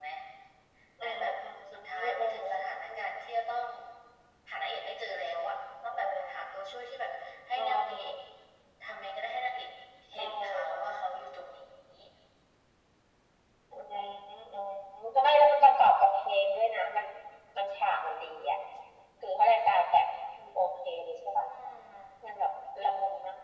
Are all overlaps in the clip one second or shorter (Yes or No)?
No